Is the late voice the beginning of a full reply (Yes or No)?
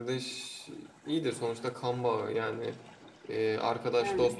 No